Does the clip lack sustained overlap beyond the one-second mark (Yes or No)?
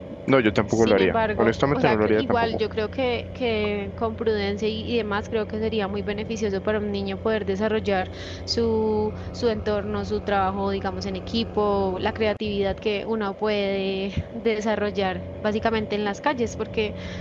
No